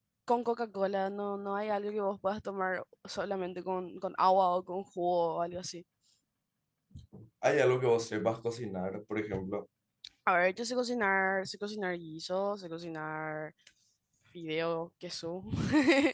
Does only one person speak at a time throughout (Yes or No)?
Yes